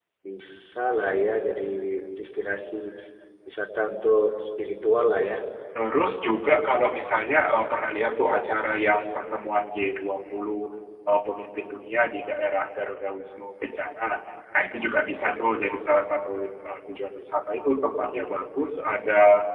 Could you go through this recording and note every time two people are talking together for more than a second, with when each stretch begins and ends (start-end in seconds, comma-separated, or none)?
none